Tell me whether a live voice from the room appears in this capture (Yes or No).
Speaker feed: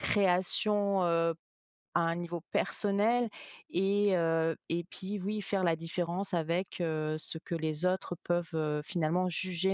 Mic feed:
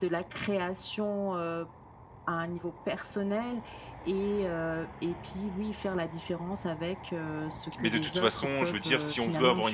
Yes